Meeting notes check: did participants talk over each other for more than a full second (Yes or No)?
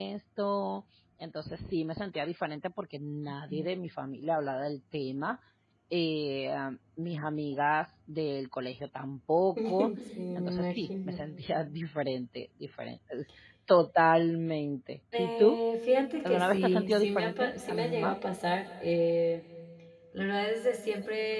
Yes